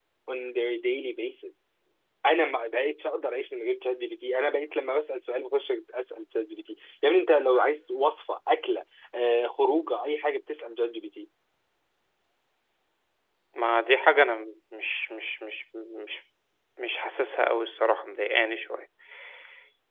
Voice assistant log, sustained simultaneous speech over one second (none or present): none